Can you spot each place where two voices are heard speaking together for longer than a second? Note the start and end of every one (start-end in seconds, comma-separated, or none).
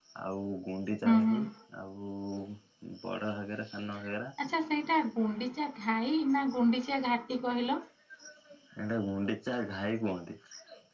none